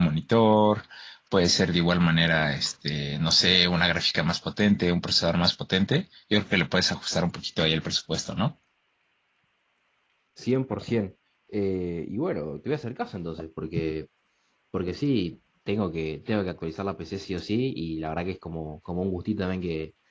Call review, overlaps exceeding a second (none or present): none